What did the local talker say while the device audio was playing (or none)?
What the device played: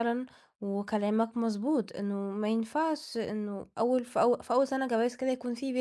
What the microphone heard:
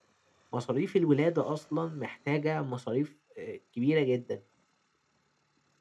مصاريف الولادة أصلًا محتاجة مصاريف آآ كبيرة جدًا.